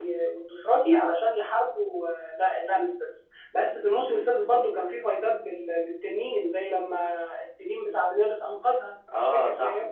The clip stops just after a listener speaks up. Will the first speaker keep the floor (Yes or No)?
No